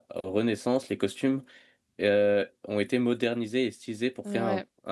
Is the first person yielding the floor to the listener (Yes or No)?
No